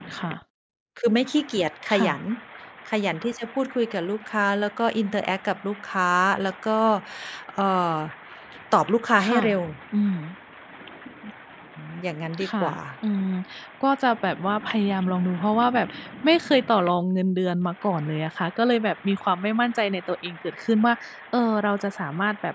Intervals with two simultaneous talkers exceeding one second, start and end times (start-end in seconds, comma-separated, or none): none